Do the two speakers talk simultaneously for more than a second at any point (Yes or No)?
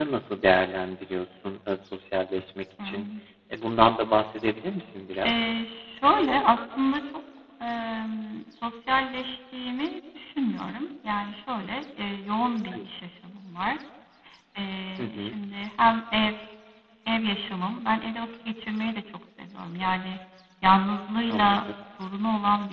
No